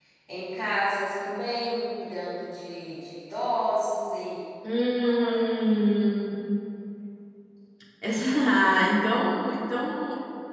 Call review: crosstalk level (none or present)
none